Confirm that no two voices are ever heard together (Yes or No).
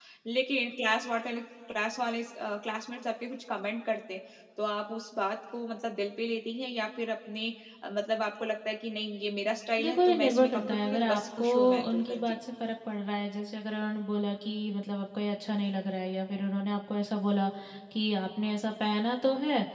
No